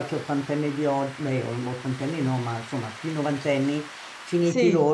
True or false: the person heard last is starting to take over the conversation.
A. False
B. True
A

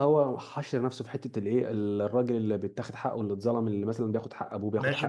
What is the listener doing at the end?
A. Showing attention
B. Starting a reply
B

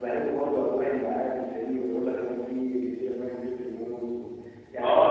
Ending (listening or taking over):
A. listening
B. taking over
B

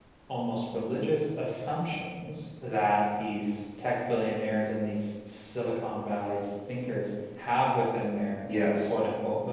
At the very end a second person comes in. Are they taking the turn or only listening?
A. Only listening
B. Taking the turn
A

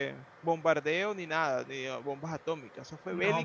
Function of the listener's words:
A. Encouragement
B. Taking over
B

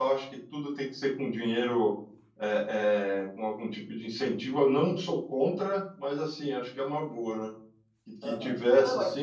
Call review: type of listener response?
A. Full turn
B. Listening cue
A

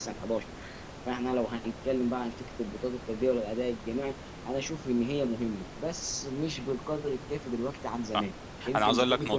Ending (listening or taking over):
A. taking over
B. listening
A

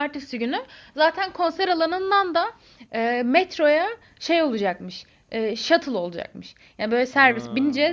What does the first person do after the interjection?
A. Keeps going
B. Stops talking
A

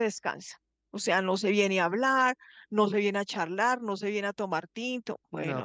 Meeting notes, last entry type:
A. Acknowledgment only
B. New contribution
B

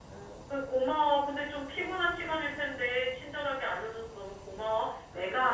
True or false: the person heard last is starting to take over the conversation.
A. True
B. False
B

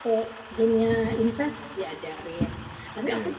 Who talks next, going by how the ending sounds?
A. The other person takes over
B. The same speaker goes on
B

